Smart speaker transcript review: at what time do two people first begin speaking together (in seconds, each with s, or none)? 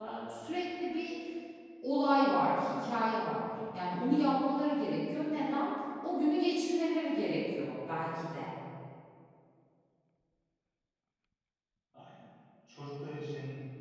none